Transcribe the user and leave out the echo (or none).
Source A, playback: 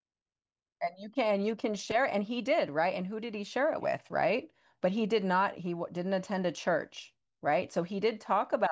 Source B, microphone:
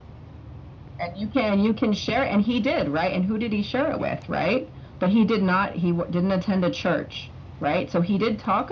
none